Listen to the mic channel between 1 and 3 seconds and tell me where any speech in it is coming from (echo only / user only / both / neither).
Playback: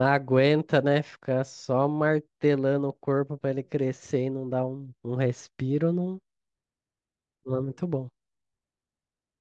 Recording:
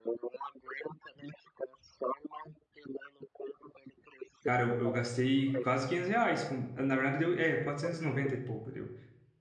echo only